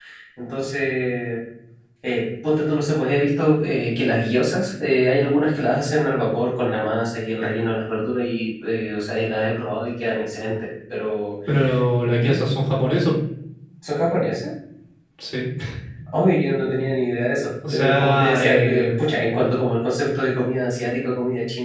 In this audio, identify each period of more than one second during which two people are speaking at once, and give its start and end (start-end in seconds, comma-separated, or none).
17.7-18.9